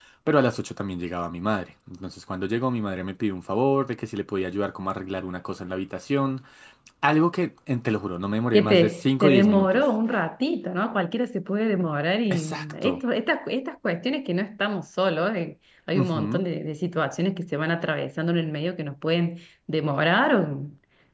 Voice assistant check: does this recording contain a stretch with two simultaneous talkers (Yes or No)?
Yes